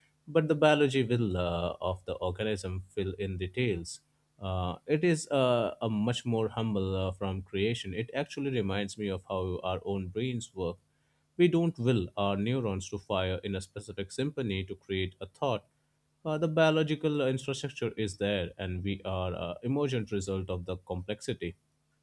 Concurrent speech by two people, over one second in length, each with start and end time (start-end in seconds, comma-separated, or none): none